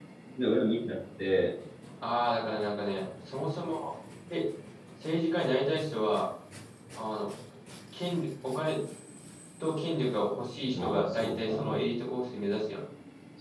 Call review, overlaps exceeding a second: present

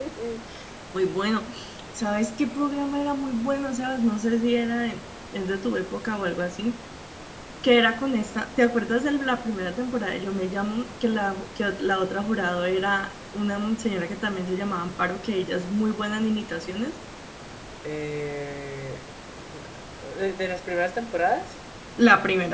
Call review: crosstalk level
none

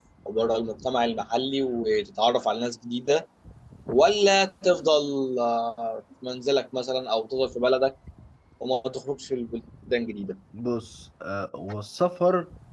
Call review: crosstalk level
none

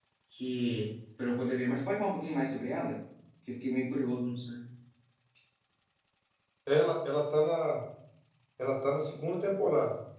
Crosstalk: none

